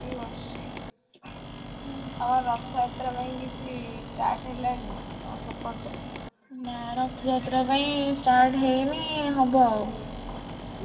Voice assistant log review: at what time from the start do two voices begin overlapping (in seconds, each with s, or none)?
none